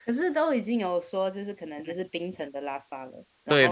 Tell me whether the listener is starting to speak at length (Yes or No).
Yes